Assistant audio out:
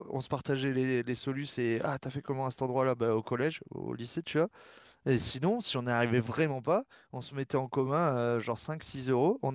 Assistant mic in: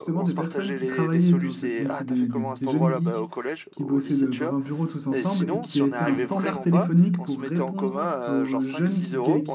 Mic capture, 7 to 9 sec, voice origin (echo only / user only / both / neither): both